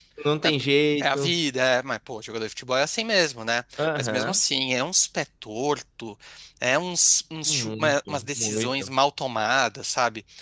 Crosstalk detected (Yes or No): Yes